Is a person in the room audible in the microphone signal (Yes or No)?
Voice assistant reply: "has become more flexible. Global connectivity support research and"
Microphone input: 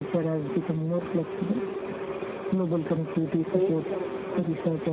Yes